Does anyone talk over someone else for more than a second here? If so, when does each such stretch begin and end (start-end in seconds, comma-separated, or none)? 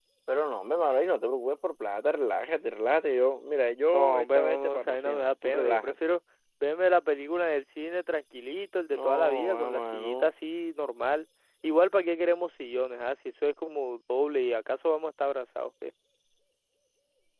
3.9-6.0, 8.9-10.3